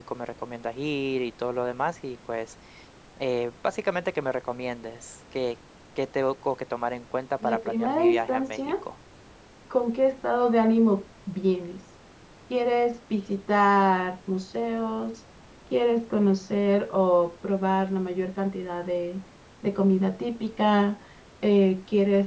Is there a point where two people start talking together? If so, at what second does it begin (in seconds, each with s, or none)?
7.4 s